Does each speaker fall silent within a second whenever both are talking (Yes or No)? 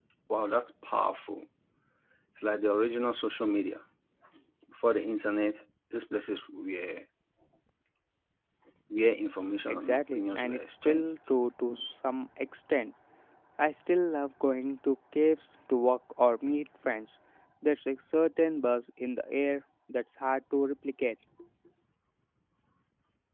No